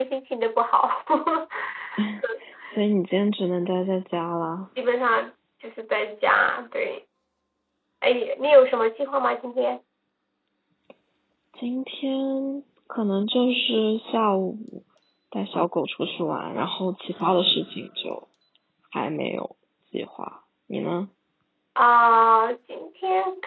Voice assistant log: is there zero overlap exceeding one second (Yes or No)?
Yes